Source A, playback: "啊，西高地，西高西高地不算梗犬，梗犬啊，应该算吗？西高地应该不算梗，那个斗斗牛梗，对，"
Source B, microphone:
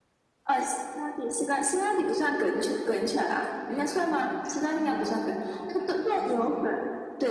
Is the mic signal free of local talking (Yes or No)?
No